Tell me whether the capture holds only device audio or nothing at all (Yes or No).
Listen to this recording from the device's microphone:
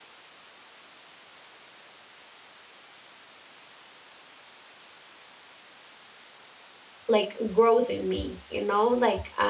No